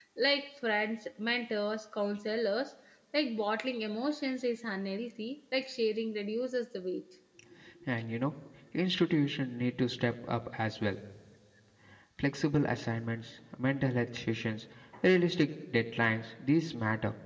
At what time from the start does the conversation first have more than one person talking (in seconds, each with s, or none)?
none